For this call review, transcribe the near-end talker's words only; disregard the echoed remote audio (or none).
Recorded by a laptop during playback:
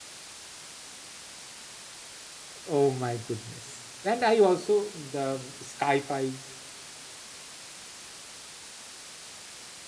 Oh my goodness. And I also the sci-fis